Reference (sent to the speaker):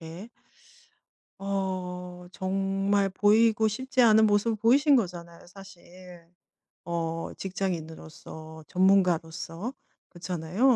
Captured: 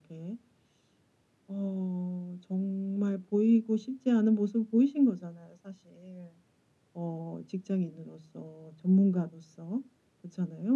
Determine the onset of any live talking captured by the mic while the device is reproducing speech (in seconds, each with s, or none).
none